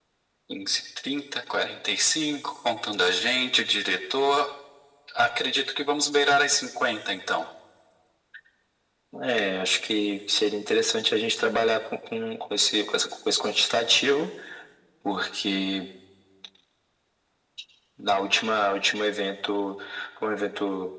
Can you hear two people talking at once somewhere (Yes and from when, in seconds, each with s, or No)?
No